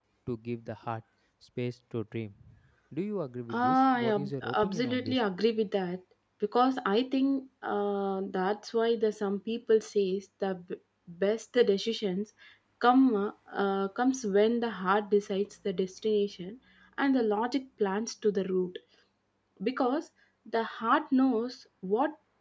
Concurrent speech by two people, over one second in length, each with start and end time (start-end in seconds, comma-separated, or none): 3.5-5.2